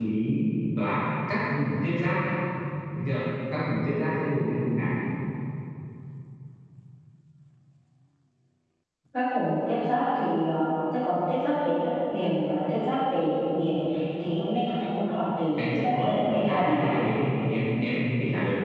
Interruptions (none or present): present